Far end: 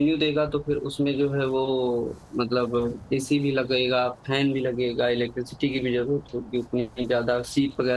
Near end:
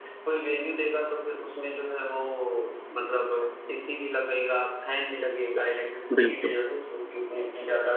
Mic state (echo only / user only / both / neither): both